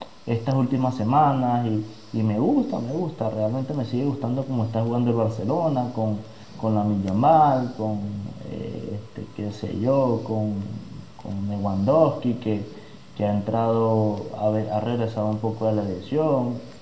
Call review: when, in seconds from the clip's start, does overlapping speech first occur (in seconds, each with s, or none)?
none